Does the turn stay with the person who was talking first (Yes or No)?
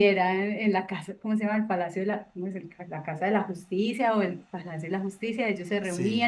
Yes